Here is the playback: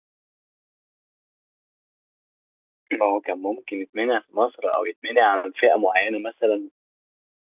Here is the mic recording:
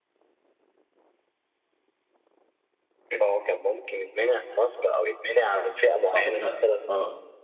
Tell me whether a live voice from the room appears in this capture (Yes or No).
Yes